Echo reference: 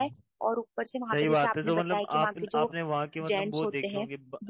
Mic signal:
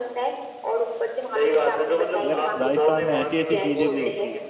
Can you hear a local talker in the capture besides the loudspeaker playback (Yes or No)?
Yes